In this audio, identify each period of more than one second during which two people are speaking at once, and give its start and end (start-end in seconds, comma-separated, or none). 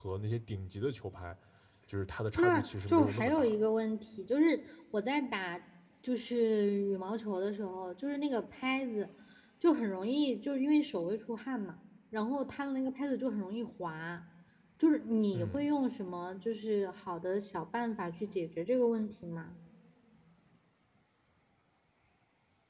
2.4-3.7